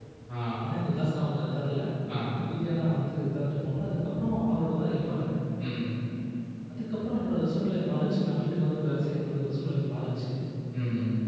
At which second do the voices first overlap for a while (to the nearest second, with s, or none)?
none